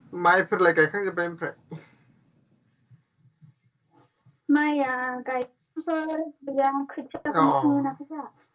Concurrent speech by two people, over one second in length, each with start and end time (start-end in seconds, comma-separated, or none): none